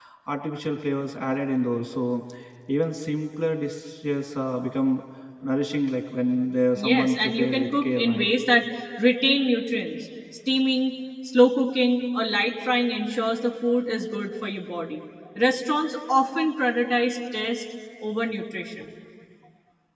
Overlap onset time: 6.8 s

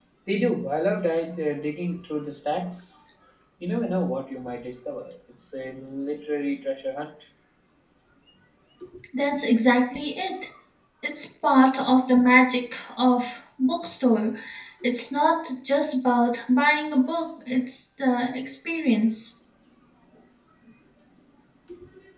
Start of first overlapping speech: none

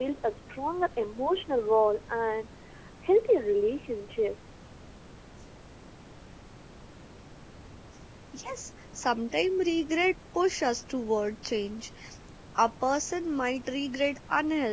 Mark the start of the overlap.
none

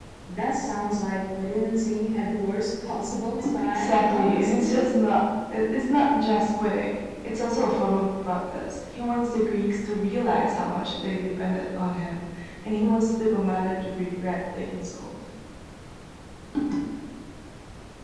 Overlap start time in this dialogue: 3.4 s

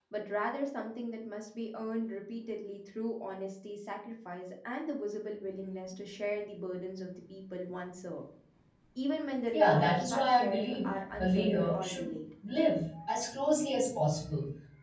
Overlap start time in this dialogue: 9.5 s

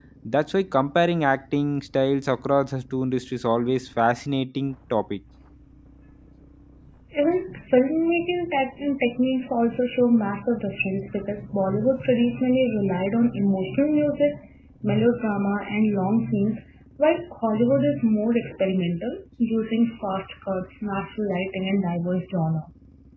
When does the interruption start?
none

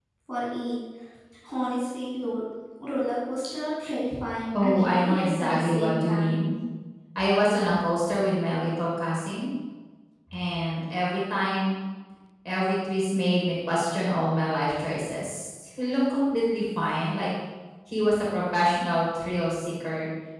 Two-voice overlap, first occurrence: 4.5 s

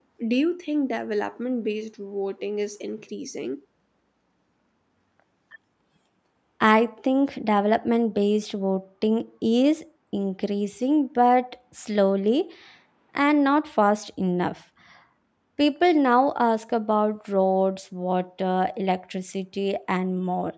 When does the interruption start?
none

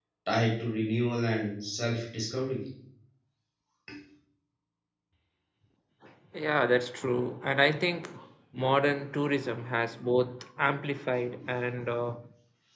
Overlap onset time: none

